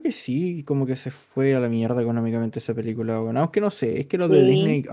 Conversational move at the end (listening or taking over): listening